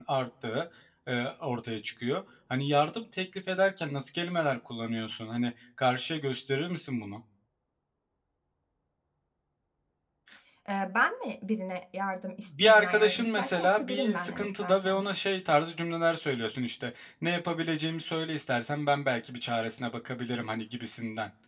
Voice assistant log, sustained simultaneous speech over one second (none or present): present